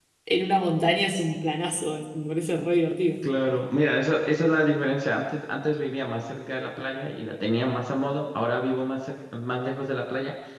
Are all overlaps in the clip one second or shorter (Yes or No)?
Yes